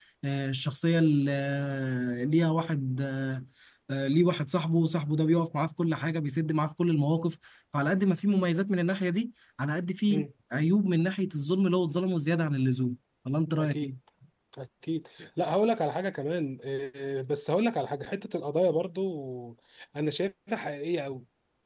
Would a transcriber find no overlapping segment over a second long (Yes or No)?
Yes